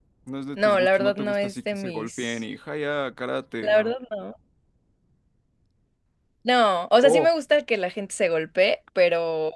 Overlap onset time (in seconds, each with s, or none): 0.6 s